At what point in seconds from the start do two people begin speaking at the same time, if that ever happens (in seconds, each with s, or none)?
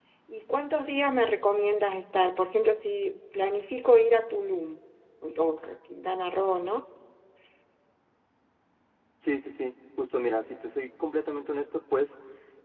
none